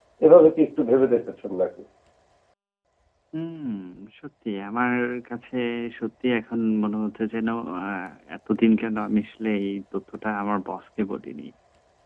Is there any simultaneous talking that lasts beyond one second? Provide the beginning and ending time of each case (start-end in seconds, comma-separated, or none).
none